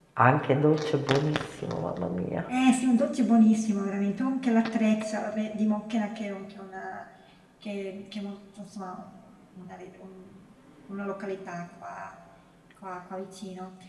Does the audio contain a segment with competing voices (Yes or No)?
No